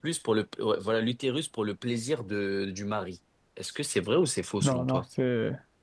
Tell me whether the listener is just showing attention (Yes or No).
No